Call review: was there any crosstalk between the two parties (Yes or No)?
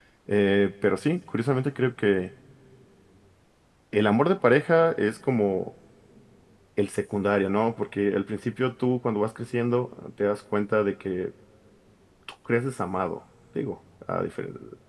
No